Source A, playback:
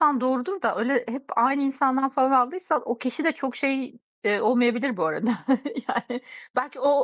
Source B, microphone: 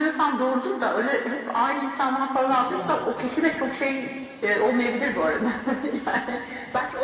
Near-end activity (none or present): present